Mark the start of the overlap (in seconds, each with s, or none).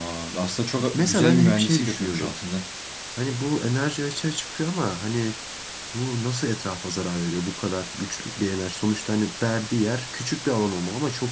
0.9 s